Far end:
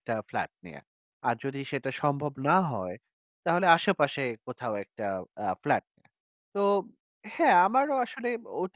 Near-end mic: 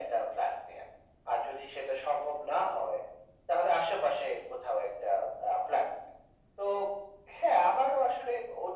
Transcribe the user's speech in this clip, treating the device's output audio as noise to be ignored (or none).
none